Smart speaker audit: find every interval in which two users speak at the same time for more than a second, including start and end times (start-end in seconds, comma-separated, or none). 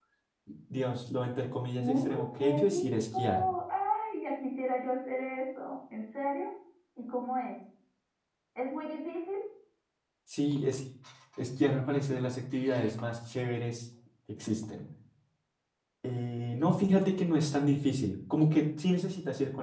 1.8-3.5